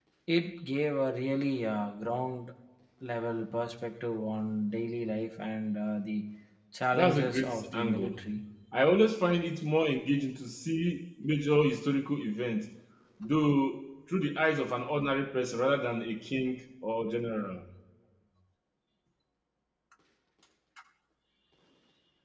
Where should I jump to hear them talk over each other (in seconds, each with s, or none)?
6.9 s